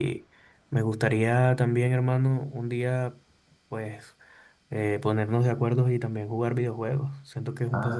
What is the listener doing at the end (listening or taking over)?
taking over